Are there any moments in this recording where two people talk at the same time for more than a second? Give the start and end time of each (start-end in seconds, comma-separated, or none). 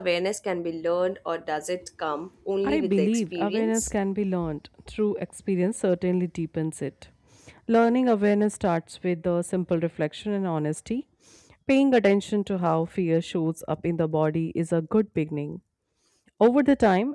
2.6-4.0